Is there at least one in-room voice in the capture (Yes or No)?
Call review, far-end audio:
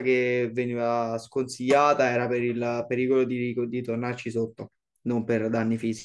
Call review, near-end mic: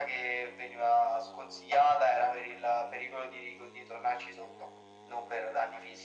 No